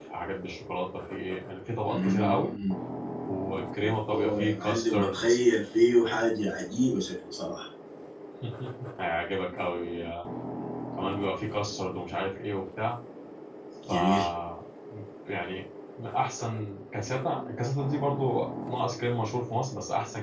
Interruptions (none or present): present